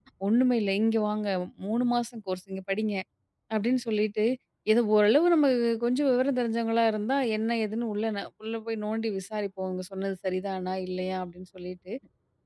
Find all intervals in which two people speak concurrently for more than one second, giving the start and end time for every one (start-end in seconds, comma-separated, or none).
none